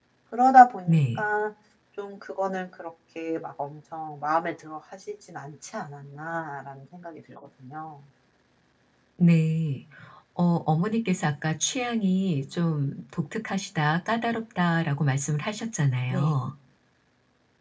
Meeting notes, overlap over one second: none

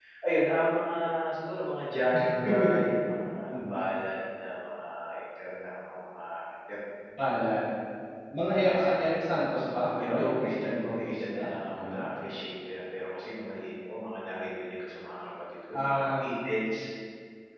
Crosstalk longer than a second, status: present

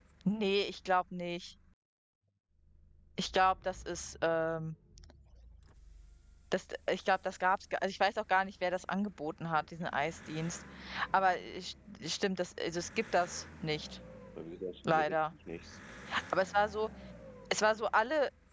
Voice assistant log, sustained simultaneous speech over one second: none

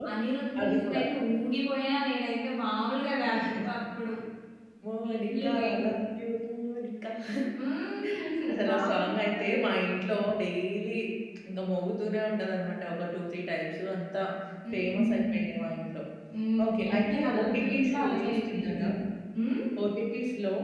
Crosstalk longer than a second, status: present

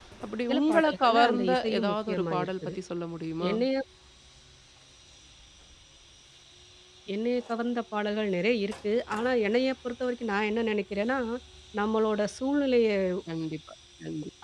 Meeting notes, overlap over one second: present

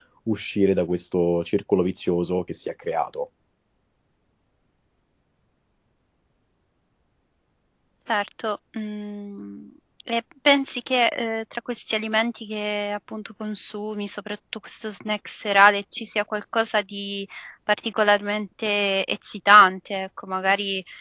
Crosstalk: none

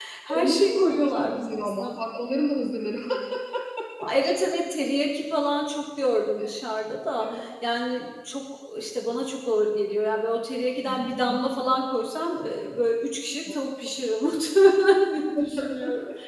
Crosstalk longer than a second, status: present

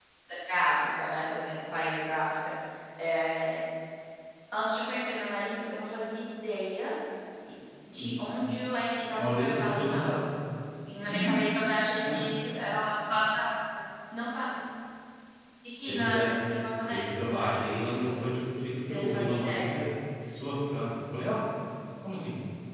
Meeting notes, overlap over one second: present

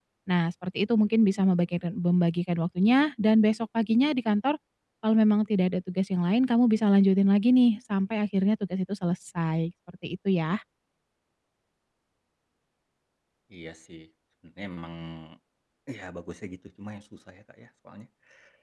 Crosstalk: none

